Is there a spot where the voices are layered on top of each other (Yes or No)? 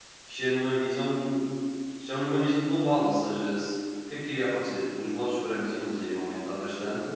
No